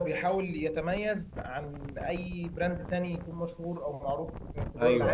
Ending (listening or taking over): taking over